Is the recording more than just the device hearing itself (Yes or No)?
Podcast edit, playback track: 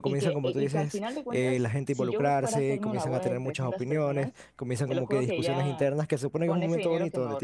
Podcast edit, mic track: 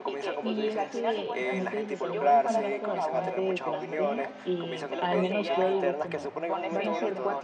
Yes